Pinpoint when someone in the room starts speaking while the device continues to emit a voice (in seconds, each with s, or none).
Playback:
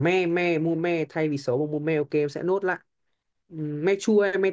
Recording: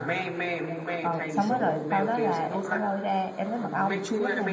1.0 s